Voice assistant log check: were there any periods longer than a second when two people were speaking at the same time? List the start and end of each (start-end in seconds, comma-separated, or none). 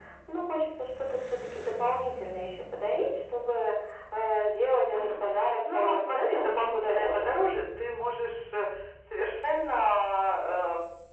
5.7-7.3